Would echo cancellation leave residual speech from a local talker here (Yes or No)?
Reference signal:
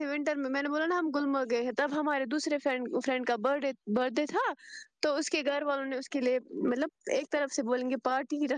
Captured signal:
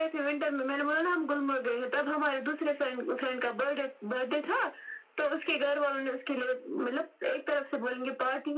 No